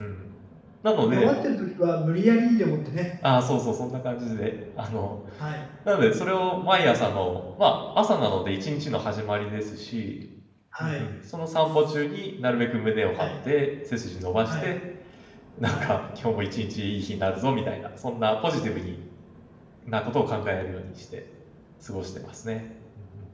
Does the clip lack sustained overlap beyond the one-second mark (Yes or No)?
Yes